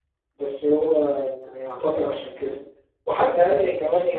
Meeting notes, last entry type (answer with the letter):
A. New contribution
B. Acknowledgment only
B